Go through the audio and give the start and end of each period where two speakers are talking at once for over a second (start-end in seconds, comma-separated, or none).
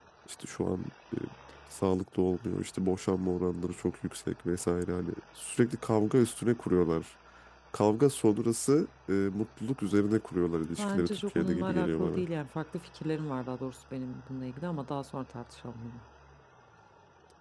10.8-12.2